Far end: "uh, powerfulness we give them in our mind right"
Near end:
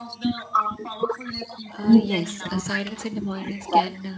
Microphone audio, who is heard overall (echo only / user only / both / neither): both